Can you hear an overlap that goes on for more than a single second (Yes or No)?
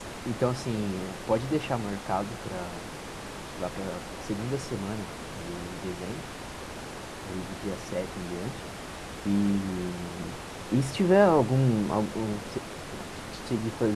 No